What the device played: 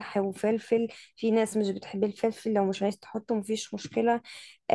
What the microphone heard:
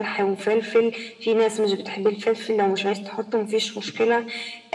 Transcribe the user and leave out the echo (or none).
none